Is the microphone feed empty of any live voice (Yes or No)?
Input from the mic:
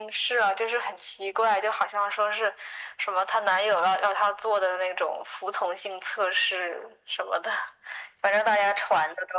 Yes